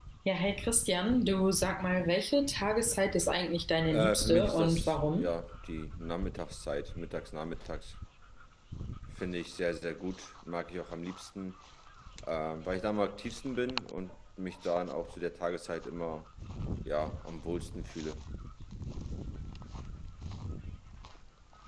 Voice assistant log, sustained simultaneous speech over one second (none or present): present